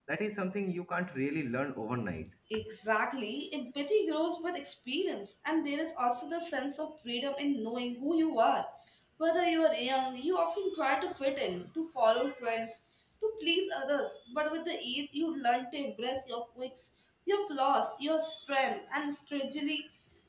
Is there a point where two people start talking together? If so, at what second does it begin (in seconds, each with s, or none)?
none